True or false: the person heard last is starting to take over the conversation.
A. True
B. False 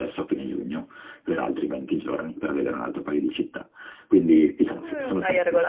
A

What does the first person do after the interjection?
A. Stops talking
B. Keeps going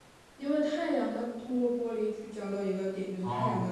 B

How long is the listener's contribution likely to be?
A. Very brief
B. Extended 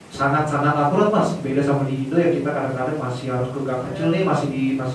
A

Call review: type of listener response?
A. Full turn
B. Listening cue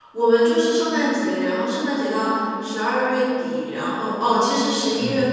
B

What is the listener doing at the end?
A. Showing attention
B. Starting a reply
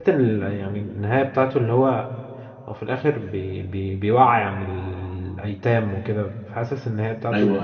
A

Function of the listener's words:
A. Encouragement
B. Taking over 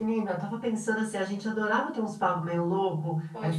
A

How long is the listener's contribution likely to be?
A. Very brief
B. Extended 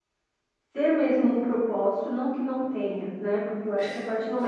A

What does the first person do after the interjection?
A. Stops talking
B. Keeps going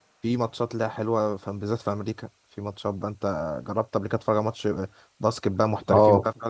A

